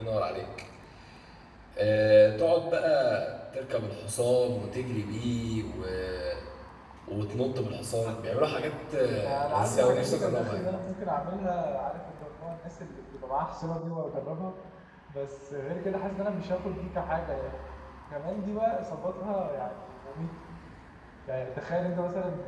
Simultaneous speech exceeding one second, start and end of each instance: 9.2-10.7

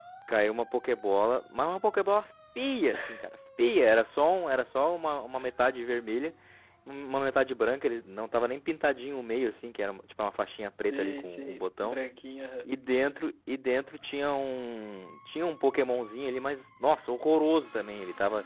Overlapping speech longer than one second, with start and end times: 10.6-12.0

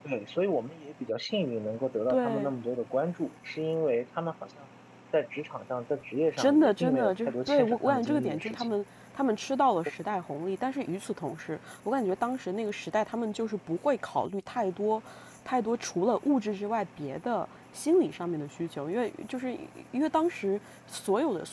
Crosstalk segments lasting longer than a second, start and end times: 6.4-8.7

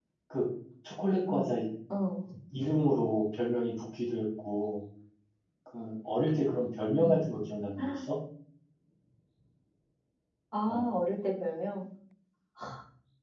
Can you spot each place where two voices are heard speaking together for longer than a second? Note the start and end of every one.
none

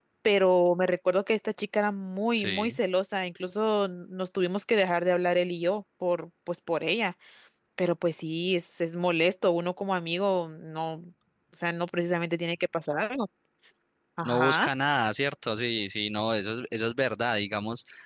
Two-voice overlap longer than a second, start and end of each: none

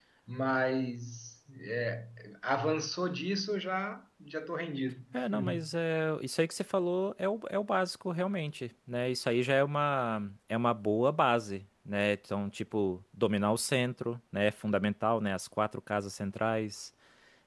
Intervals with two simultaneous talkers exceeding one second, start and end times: none

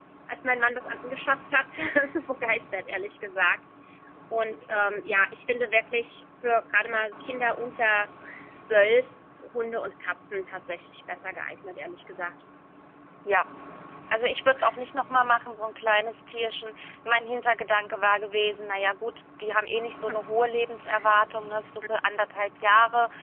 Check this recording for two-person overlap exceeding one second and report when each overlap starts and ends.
none

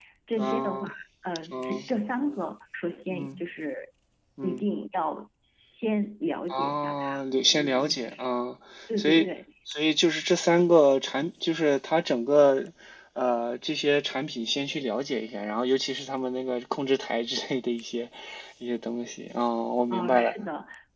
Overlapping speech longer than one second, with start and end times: 6.5-8.2

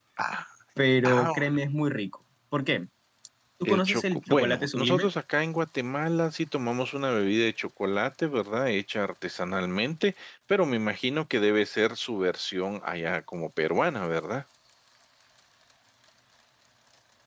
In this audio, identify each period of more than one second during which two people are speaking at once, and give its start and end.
3.6-5.1

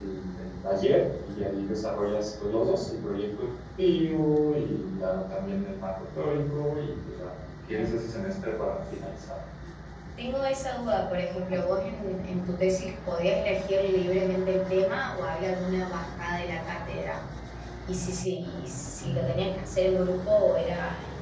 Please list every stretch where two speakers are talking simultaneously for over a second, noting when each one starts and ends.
none

